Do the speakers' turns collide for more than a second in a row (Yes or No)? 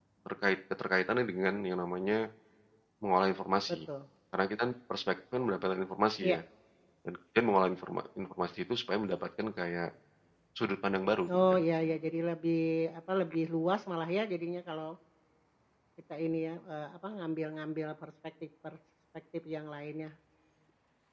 No